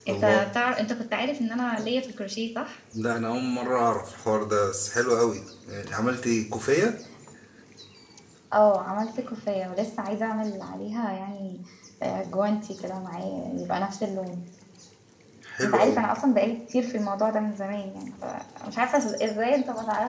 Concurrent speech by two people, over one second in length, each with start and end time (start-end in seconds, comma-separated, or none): none